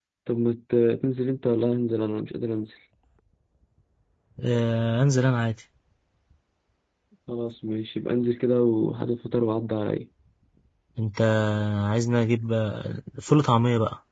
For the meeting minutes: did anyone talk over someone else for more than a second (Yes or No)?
No